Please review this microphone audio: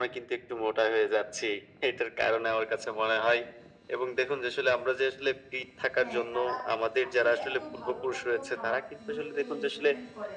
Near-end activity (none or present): present